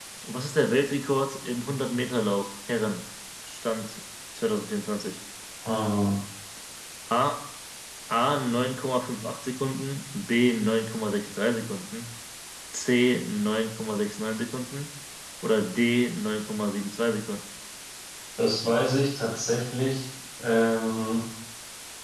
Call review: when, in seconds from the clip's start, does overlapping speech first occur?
none

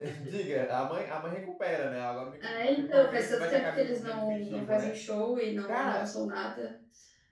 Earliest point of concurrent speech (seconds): 2.4 s

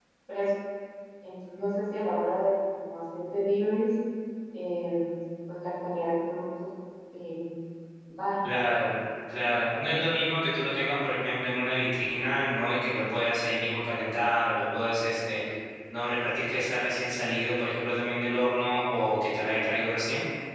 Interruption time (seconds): none

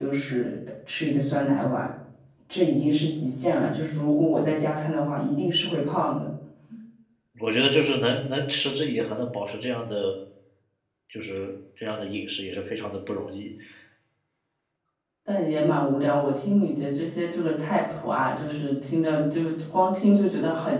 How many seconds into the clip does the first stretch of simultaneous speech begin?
none

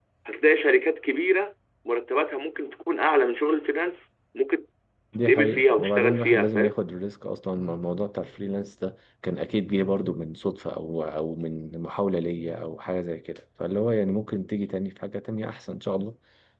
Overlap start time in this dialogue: 5.2 s

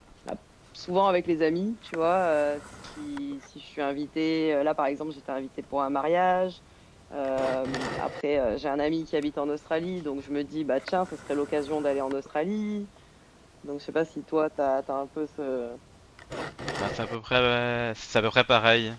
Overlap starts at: none

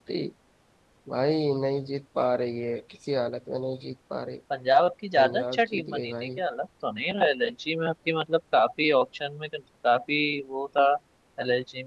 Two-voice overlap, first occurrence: 5.2 s

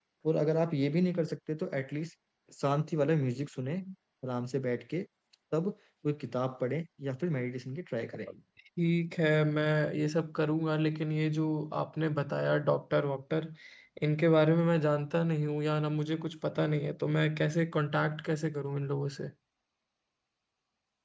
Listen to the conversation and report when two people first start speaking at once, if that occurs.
none

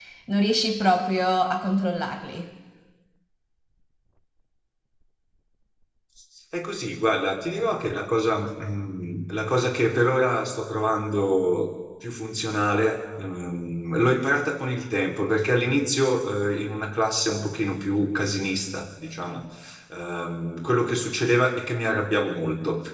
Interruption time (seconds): none

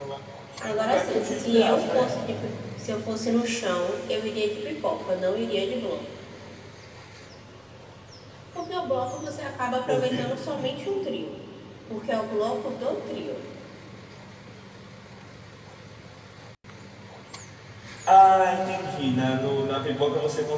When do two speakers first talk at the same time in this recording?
0.7 s

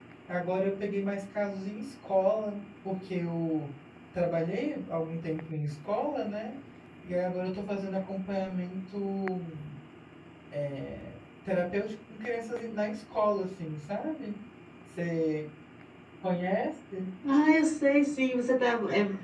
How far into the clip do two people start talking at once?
none

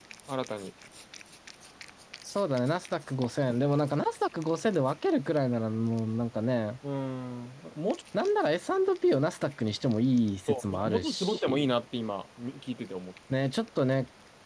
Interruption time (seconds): 10.5 s

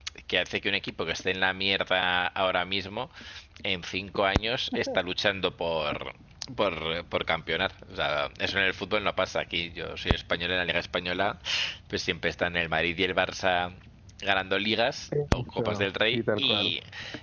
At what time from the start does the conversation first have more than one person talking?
15.1 s

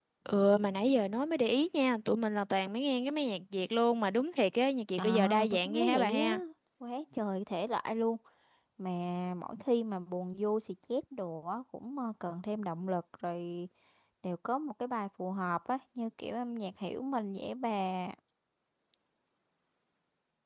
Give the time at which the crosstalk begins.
5.0 s

